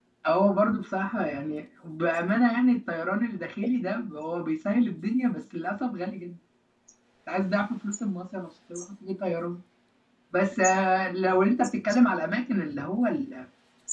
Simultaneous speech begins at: none

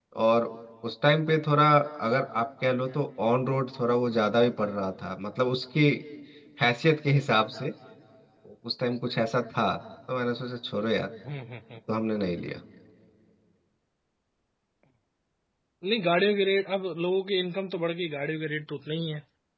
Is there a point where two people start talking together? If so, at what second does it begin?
none

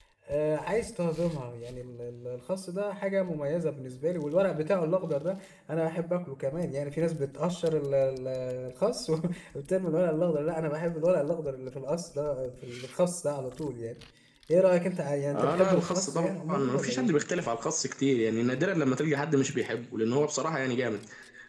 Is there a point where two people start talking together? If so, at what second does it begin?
15.3 s

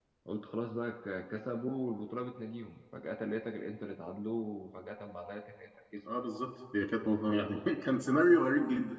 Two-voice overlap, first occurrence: none

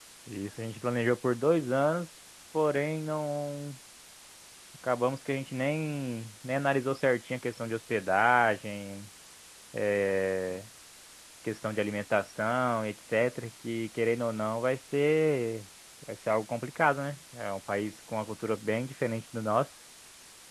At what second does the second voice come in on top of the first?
none

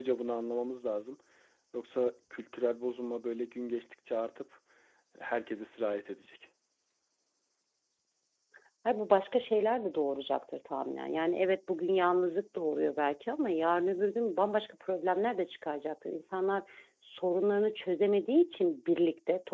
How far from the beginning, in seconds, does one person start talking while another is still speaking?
none

